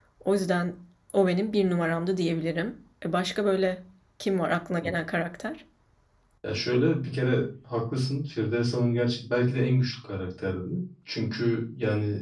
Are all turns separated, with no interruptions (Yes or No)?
Yes